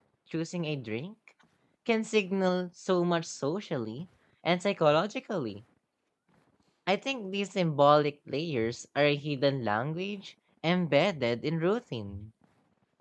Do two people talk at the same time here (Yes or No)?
No